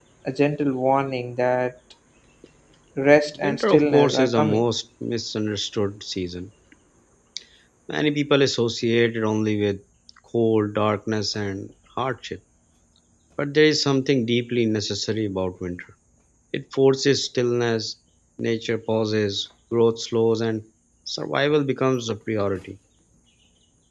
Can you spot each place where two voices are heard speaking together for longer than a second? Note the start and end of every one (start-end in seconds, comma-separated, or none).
3.4-4.6